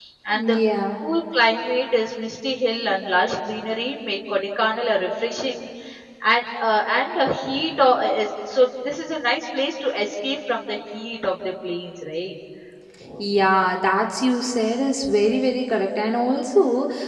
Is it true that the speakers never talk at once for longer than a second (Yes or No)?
Yes